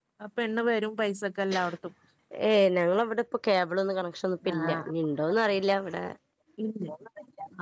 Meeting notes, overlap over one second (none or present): none